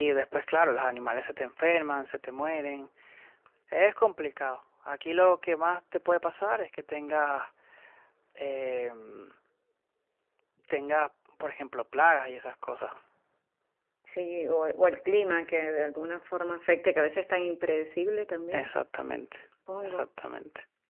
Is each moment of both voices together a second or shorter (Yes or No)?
Yes